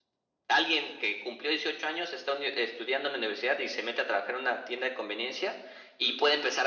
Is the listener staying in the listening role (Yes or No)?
Yes